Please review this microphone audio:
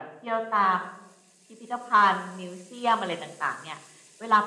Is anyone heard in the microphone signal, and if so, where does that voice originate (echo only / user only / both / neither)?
echo only